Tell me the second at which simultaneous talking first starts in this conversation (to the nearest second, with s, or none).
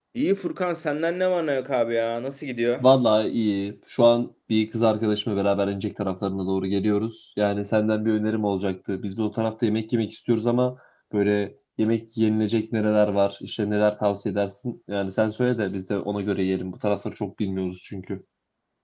none